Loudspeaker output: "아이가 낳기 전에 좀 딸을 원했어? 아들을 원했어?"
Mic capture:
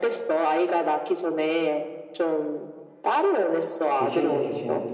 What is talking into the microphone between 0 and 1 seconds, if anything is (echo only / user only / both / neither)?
echo only